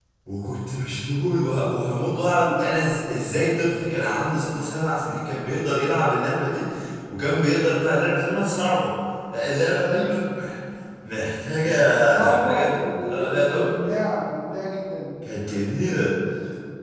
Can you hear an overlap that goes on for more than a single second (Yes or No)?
Yes